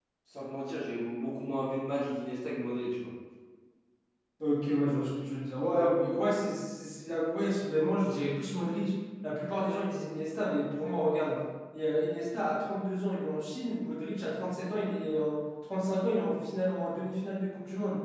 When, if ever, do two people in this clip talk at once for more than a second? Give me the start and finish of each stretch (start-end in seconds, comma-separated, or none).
none